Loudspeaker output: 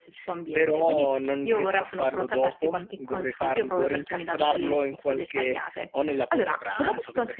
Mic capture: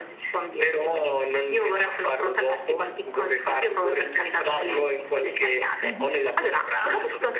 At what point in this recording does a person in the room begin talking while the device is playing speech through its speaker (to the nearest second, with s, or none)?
6 s